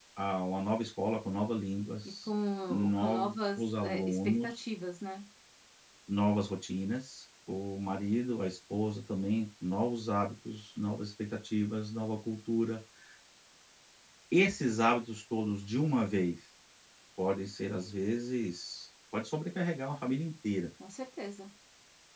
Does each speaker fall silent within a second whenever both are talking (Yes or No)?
No